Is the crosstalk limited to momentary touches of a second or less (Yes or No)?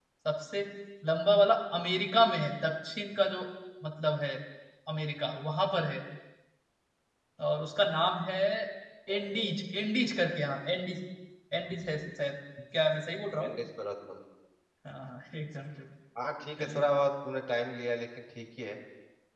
Yes